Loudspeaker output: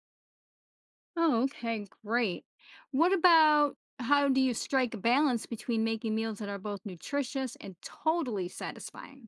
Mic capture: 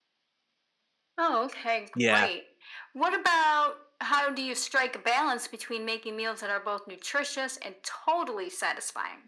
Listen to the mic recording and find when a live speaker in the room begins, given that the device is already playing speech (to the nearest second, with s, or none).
2 s